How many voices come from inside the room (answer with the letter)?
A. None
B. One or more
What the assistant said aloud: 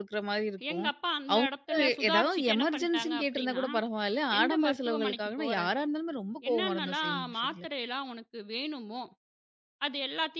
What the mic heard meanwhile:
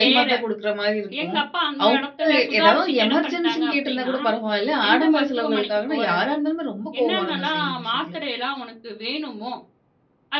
A